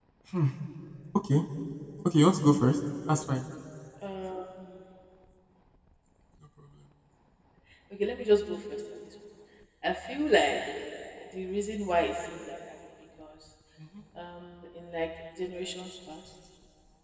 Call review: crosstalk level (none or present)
none